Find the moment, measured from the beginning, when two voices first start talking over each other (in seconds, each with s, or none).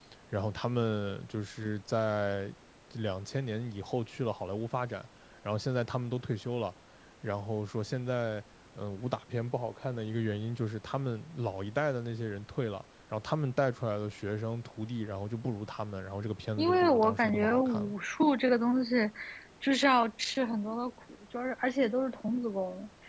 16.6 s